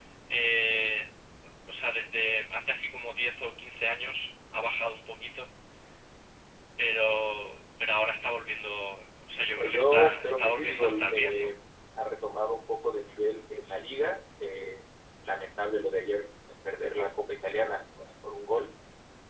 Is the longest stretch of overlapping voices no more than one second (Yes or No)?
No